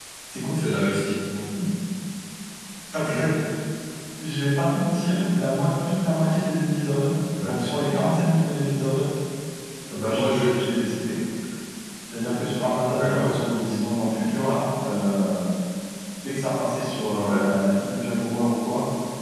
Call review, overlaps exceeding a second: none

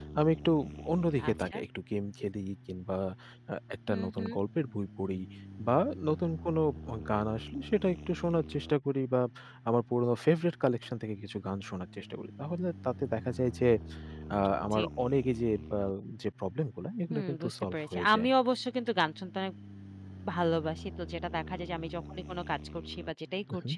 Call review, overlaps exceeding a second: present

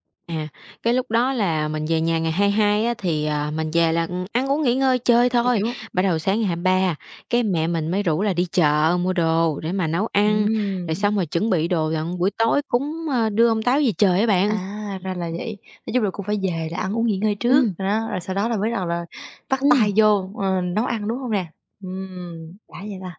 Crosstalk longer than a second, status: none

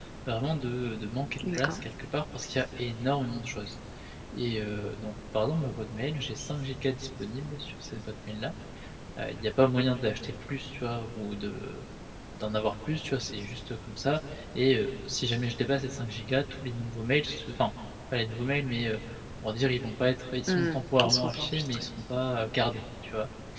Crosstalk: present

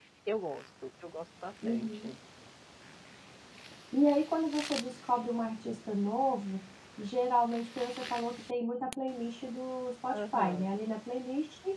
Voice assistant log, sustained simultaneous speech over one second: none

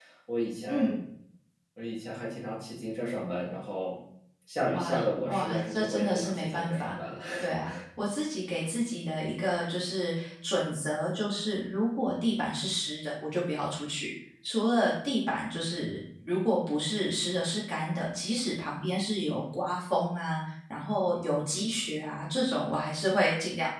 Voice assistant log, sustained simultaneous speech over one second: present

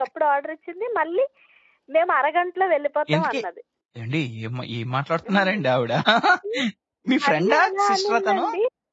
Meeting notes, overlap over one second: present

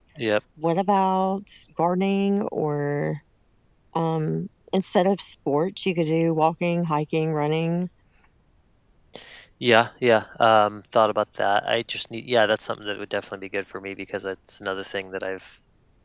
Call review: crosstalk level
none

